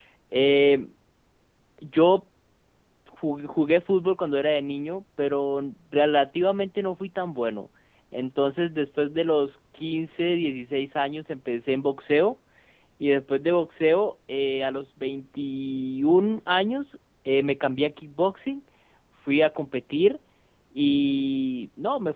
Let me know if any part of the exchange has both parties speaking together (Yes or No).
No